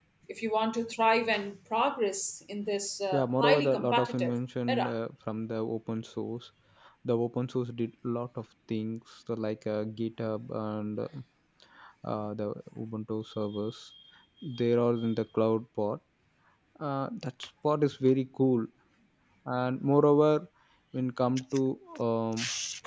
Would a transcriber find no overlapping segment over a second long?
No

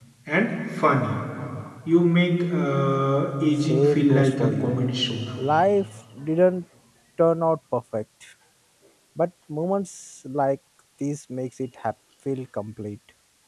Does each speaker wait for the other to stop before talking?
No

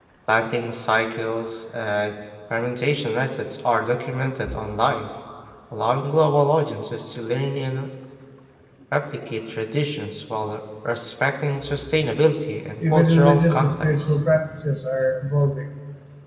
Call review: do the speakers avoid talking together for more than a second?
No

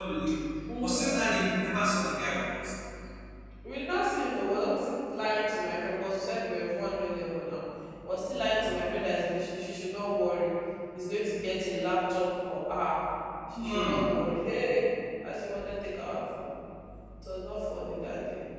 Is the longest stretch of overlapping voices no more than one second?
Yes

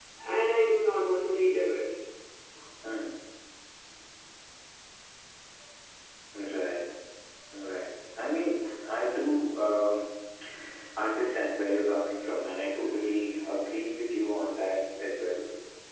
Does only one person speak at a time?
Yes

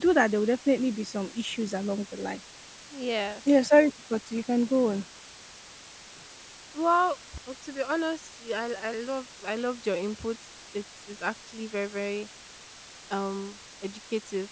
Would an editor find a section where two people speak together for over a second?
No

